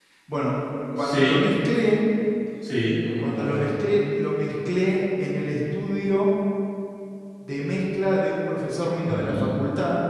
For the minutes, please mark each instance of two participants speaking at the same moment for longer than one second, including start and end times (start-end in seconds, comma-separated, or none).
none